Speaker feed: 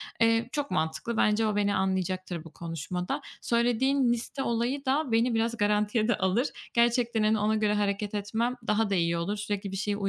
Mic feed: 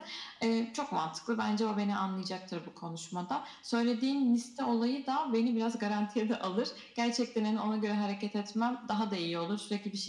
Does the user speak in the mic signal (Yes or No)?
No